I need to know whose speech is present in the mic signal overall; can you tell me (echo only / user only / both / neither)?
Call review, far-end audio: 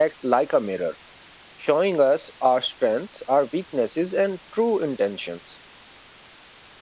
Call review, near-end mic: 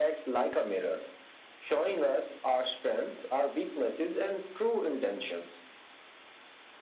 echo only